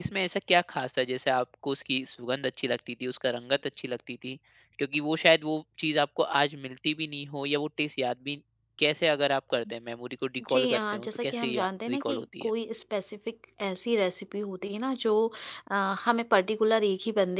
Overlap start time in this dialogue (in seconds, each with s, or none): 10.4 s